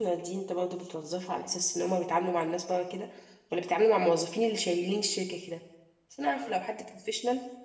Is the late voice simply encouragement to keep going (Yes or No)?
Yes